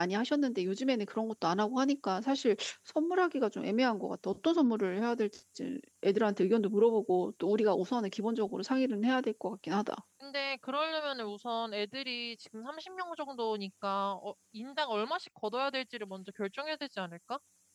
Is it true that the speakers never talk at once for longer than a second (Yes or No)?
Yes